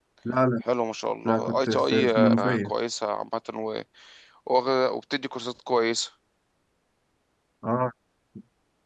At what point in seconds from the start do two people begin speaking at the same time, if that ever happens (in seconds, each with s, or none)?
1.2 s